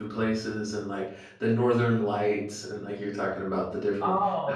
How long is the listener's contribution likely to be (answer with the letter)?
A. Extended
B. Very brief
A